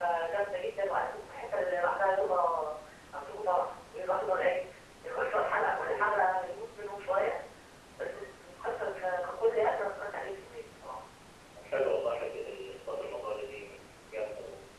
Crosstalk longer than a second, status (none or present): none